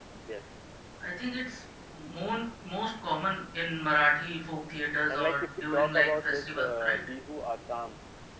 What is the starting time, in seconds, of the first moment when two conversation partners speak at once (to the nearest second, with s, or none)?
5 s